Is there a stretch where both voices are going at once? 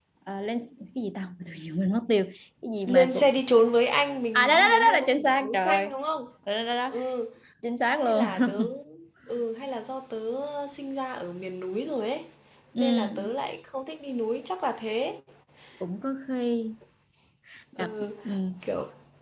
Yes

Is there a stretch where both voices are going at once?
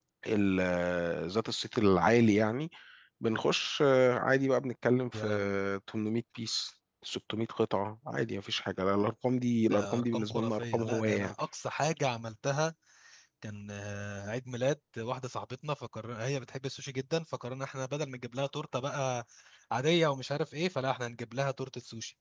Yes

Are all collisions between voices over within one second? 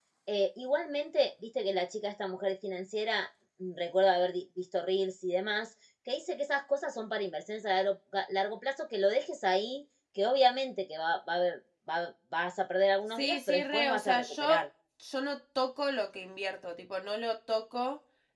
No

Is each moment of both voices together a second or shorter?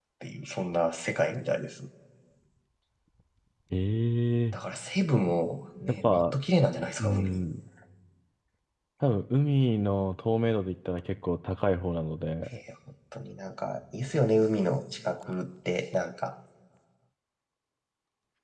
Yes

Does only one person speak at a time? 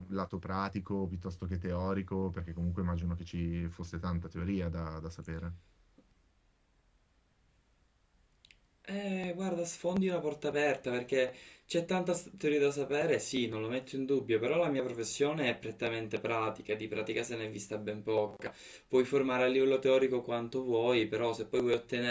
Yes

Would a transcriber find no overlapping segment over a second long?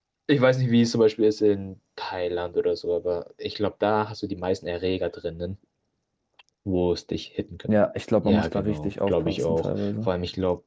No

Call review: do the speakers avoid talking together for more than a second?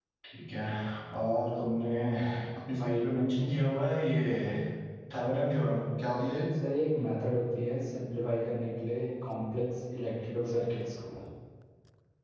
Yes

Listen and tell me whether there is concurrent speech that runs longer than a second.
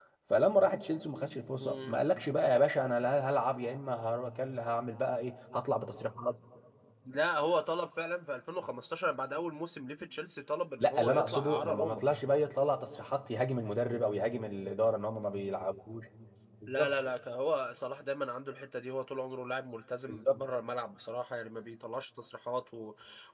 Yes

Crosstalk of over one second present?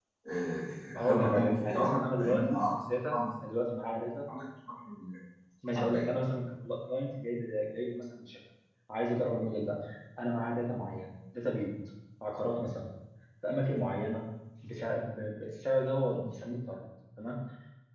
Yes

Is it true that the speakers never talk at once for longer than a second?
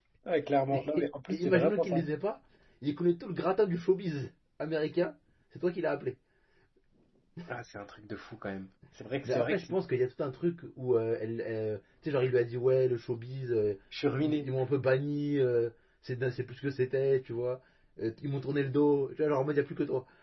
No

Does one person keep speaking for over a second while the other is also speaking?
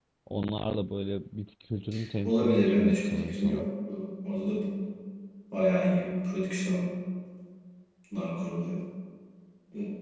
Yes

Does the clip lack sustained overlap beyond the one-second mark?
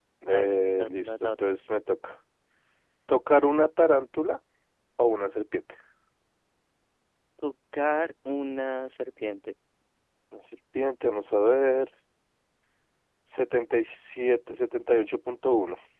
No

